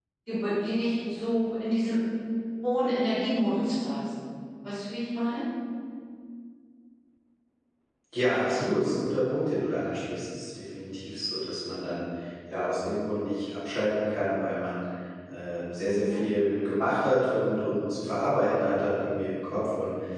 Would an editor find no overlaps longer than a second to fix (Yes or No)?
Yes